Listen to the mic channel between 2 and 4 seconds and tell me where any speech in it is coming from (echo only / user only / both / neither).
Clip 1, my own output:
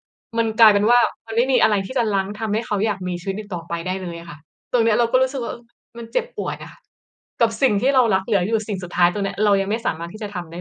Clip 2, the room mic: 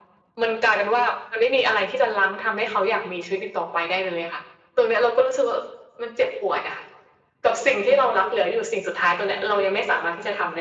echo only